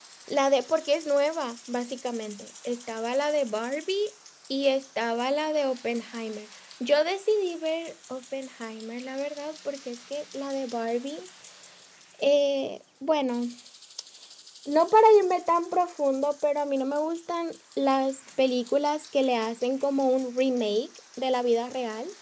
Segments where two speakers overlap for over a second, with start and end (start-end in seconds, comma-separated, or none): none